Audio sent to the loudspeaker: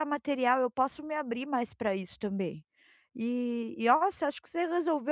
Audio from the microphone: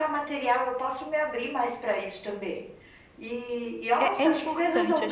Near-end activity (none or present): present